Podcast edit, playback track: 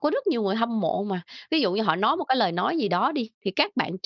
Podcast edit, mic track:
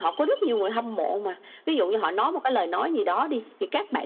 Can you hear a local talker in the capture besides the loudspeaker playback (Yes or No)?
No